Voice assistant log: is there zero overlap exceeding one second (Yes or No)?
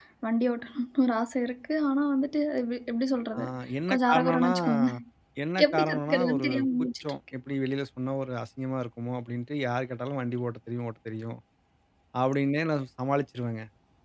No